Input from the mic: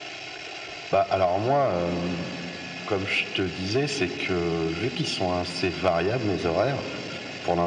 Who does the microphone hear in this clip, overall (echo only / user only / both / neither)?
echo only